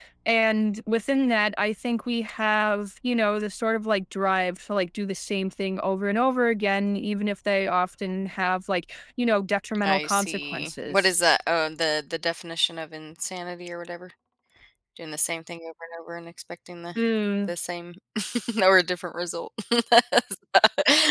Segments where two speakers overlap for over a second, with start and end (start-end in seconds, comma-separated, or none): 9.8-11.1